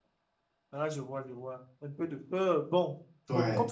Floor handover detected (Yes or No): No